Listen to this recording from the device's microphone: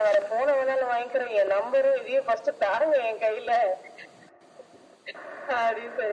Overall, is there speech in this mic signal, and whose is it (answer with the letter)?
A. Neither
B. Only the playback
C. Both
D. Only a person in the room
B